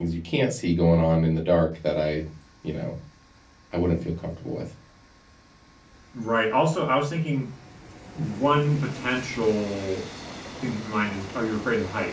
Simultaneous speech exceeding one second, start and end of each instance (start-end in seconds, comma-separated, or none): none